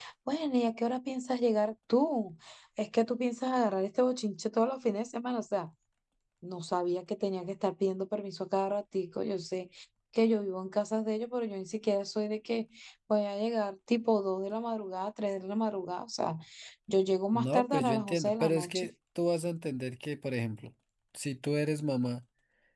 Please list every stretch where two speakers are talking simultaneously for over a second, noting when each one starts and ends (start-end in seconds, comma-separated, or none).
17.3-18.9